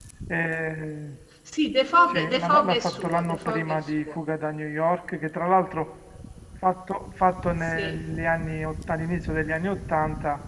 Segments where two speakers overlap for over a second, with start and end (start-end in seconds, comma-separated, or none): 2.1-4.2